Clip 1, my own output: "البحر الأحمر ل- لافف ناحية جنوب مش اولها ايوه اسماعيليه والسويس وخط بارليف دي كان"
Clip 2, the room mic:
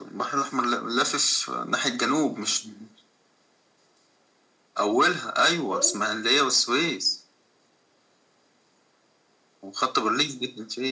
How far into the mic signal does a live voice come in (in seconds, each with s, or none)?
5.7 s